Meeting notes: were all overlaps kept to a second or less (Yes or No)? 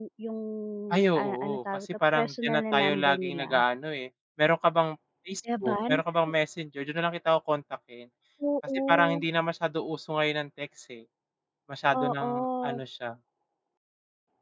No